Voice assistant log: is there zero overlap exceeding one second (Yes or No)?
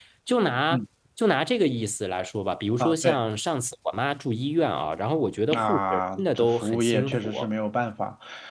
No